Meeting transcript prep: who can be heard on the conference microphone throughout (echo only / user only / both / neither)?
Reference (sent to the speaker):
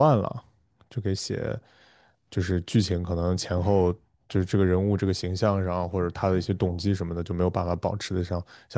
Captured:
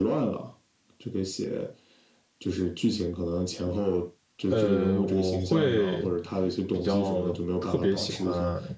both